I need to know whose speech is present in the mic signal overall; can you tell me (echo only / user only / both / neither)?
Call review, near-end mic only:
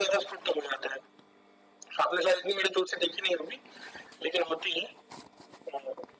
echo only